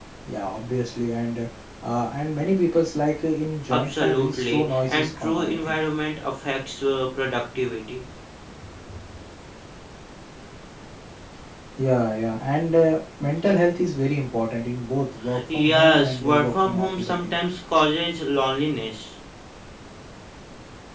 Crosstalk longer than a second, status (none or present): present